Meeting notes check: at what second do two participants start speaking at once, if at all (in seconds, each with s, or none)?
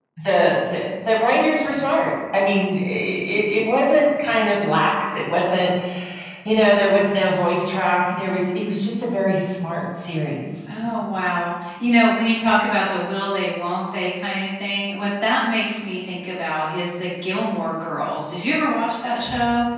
none